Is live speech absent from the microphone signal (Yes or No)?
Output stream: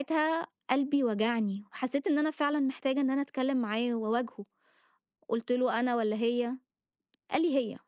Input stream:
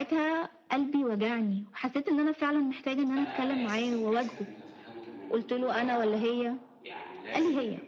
No